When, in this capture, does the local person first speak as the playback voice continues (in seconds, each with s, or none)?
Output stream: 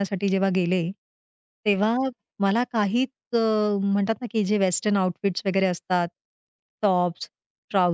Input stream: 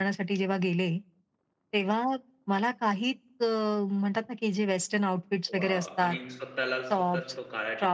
5.6 s